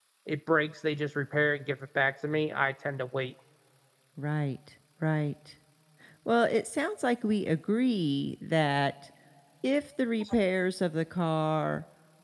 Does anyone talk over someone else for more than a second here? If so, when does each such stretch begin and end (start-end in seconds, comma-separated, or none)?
none